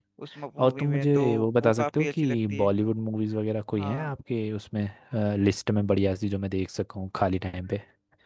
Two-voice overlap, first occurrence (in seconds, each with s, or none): 0.6 s